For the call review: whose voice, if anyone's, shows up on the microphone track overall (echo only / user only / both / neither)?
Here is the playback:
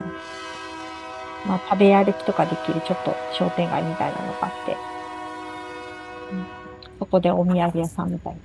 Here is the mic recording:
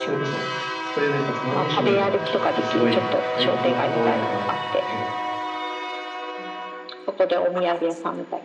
both